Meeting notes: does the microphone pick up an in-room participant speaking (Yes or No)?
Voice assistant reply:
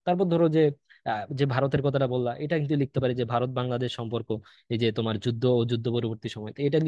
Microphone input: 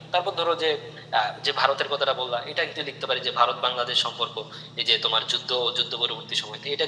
No